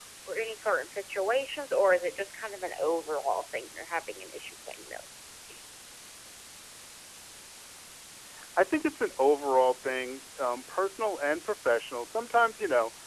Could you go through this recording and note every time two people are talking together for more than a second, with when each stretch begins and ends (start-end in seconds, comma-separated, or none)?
none